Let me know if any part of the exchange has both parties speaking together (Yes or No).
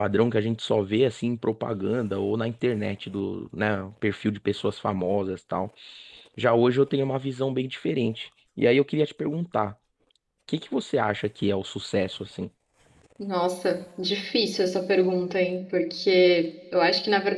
No